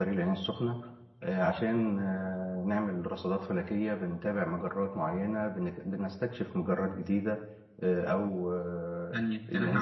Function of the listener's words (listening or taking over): taking over